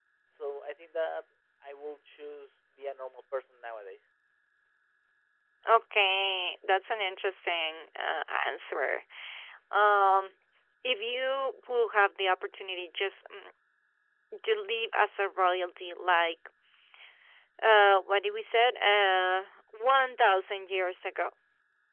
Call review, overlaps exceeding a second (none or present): none